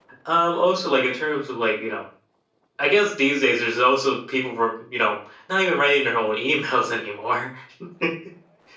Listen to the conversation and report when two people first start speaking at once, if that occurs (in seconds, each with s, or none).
none